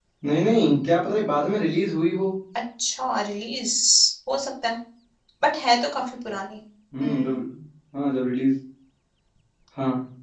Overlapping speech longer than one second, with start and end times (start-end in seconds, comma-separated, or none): none